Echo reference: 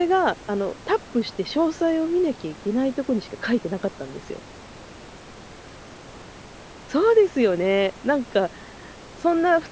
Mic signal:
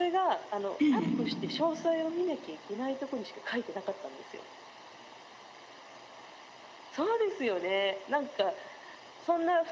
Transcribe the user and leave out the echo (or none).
ええ。